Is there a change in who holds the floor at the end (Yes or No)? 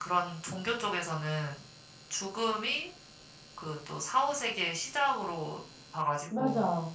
No